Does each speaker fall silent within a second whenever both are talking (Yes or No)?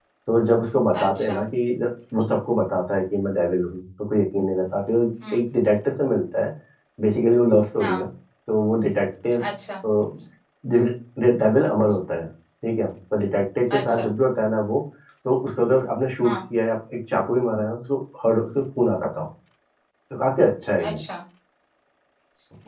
Yes